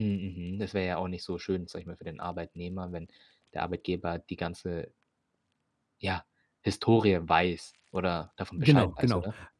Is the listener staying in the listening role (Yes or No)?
No